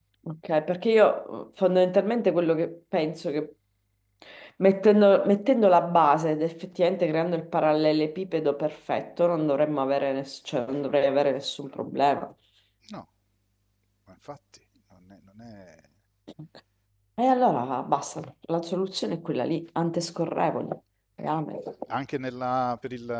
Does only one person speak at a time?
Yes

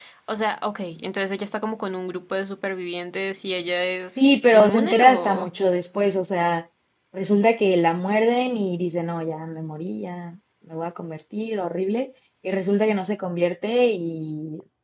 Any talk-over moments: Yes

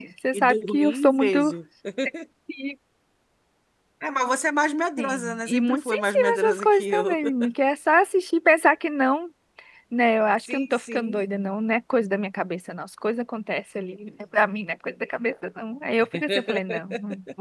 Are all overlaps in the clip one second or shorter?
No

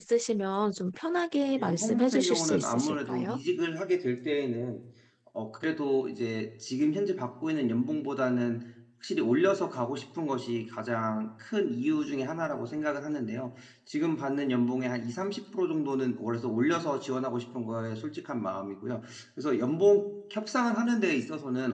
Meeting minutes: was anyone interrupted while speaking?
Yes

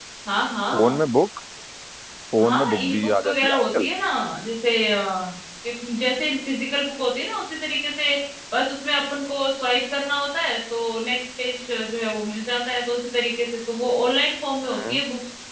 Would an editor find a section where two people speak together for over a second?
Yes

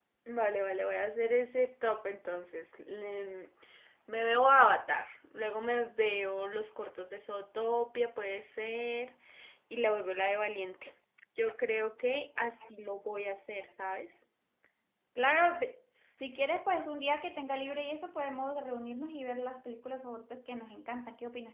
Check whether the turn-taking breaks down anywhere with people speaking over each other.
No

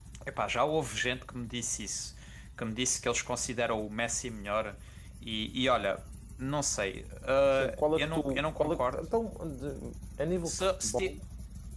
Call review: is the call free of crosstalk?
No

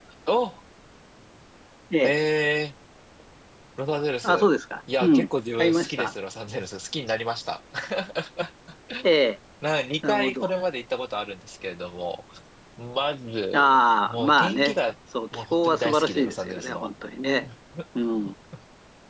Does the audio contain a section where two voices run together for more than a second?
Yes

